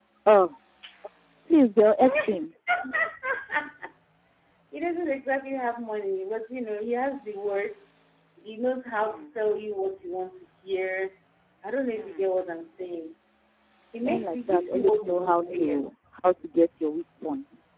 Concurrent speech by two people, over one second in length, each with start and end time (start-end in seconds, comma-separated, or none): 14.0-15.8